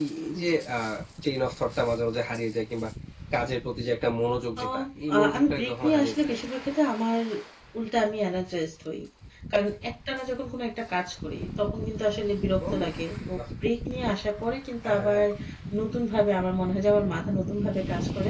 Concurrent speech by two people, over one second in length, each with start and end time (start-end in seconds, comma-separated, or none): 4.6-6.3